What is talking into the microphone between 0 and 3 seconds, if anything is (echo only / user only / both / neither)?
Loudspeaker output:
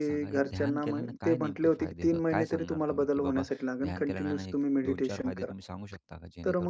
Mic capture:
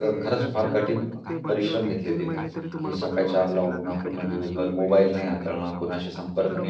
both